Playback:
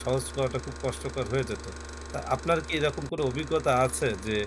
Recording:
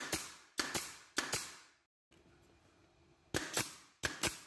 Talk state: neither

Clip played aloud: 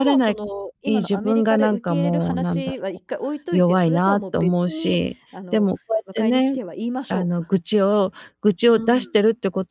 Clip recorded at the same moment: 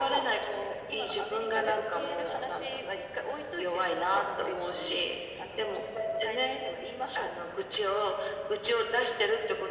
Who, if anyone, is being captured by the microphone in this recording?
echo only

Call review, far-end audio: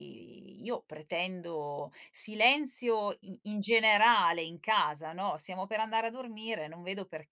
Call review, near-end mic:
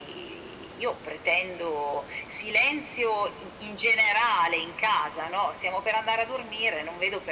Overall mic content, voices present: echo only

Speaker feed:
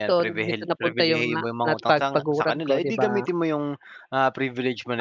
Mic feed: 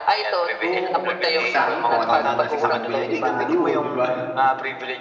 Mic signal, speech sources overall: both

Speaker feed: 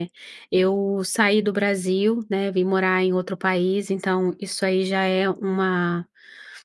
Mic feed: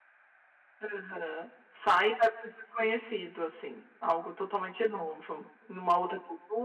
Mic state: user only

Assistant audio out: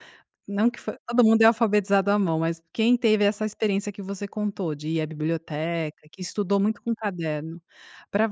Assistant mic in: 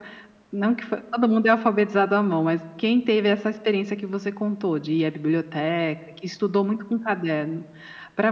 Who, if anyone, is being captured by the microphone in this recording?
echo only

